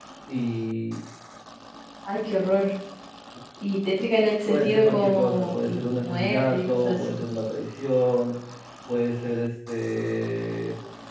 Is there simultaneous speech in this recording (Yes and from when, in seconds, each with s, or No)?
Yes, from 4.5 s